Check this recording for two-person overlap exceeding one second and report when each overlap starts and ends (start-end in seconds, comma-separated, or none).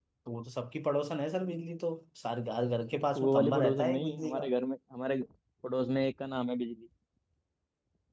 3.1-4.5